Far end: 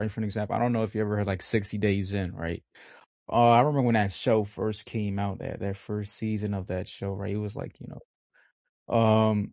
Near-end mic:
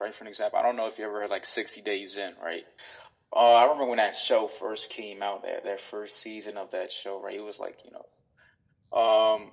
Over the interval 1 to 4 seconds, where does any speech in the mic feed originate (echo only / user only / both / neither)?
echo only